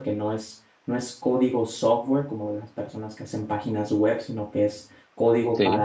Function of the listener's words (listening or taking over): listening